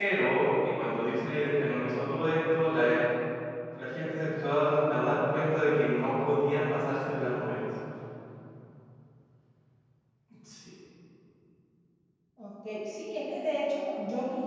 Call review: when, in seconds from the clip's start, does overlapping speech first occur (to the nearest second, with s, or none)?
none